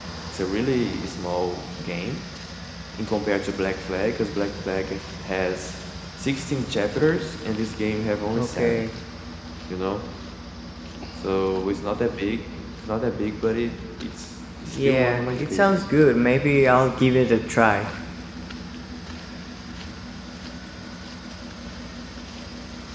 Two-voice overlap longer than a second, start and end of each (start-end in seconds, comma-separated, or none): 14.7-16.2